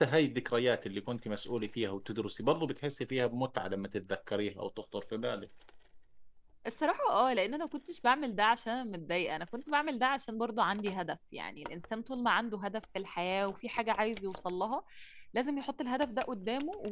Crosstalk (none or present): none